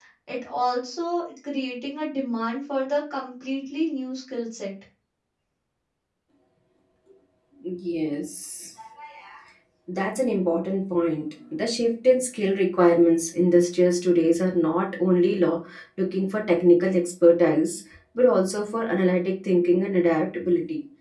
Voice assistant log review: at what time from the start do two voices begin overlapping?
none

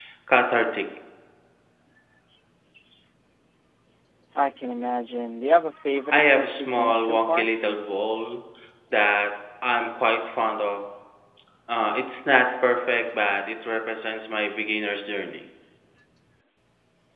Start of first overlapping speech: 6.1 s

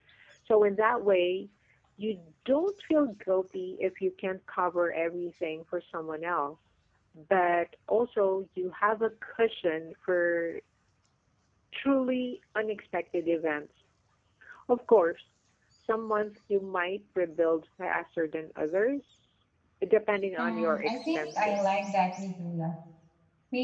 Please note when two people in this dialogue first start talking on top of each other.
20.4 s

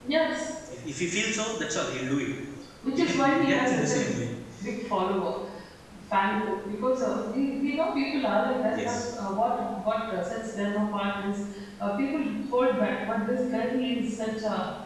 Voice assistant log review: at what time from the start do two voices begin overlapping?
3.0 s

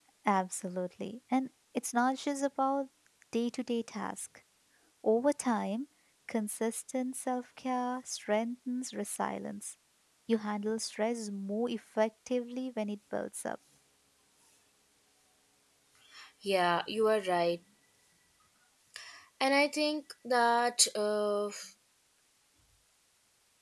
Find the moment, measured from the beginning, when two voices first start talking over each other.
none

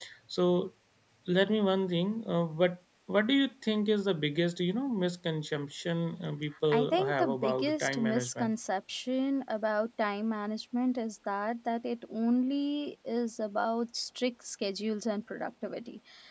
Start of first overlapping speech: 6.7 s

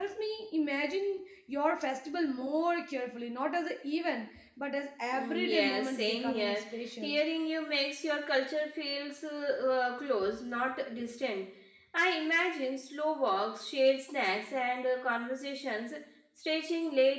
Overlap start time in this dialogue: 5.1 s

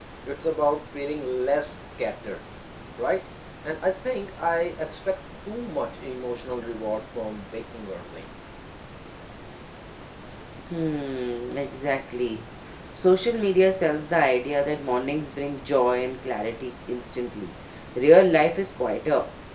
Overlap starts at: none

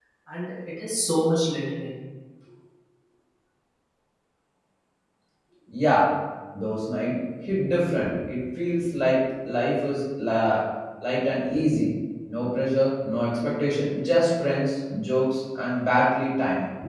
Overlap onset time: none

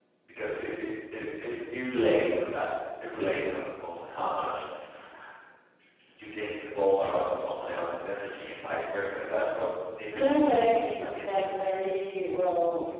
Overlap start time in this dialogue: 10.1 s

